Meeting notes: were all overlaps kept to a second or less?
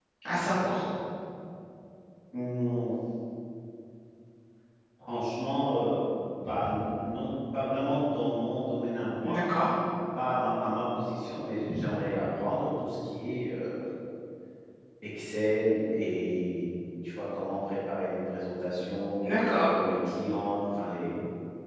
Yes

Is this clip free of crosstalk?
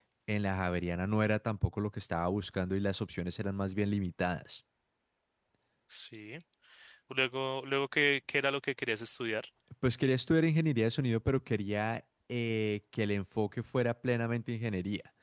Yes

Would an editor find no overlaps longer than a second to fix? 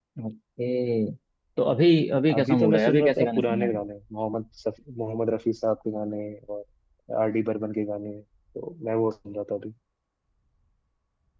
No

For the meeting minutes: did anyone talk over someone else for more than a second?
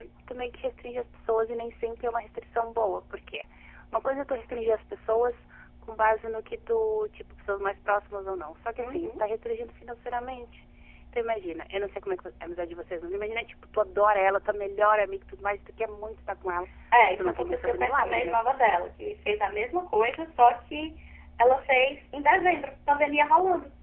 Yes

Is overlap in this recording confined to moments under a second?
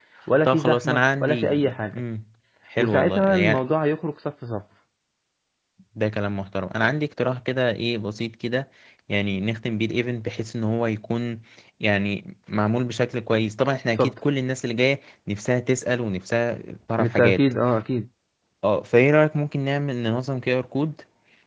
No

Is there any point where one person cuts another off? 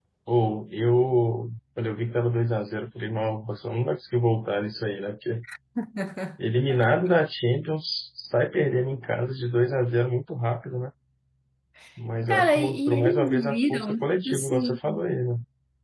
Yes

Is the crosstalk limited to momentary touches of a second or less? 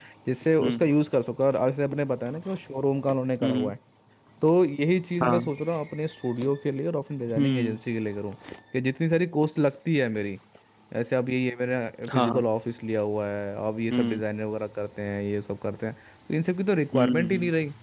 Yes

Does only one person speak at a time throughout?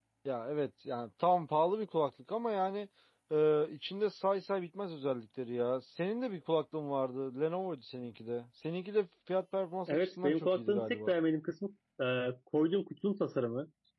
No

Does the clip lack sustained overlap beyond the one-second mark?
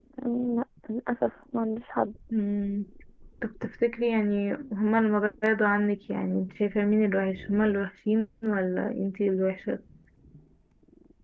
Yes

